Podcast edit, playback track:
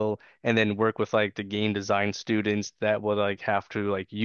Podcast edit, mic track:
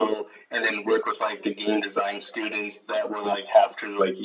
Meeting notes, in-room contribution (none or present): none